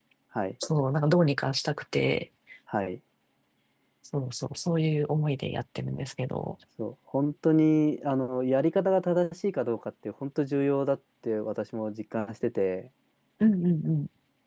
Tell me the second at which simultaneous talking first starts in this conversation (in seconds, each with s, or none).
none